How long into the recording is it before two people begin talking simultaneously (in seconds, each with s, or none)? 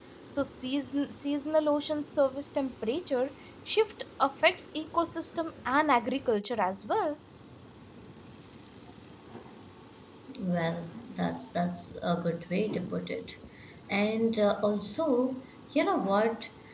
none